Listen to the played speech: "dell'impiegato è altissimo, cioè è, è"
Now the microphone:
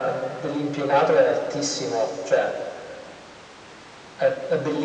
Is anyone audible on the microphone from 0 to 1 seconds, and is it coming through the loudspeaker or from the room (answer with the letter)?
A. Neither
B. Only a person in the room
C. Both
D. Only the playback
D